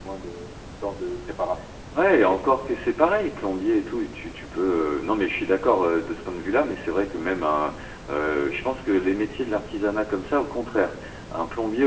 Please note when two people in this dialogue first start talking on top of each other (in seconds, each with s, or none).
none